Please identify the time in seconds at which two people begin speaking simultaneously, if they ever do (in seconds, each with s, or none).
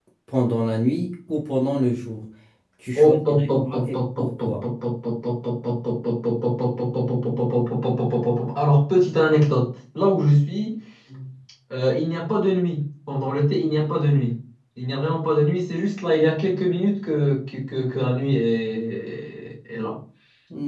3.0 s